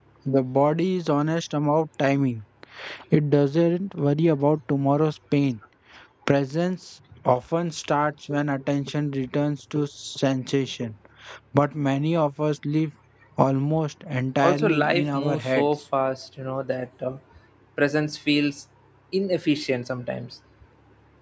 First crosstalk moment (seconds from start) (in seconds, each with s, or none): 14.4 s